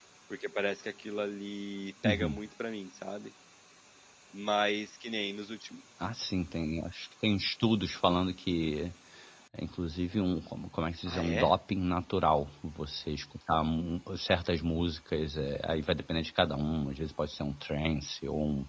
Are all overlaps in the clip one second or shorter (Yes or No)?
Yes